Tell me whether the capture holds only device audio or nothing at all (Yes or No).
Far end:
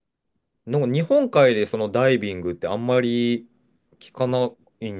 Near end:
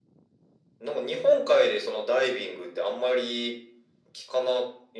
Yes